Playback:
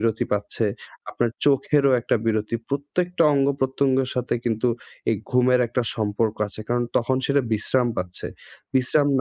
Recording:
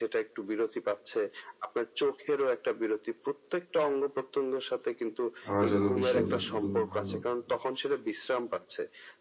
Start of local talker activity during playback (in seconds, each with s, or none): 5.5 s